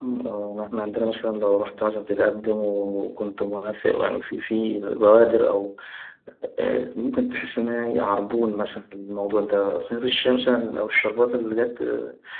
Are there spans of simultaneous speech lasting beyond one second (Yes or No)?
No